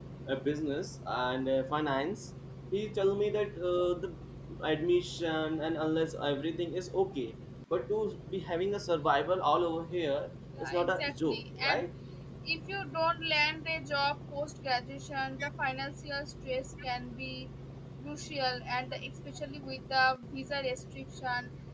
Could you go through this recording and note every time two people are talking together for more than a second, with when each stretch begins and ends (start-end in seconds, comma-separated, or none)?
10.6-11.8